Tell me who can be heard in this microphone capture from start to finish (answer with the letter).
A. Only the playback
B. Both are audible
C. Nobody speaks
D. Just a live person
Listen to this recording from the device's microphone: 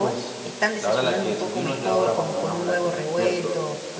B